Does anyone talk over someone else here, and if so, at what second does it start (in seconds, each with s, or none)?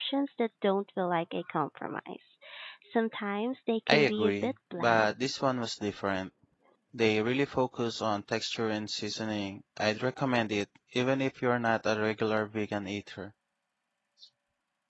3.9 s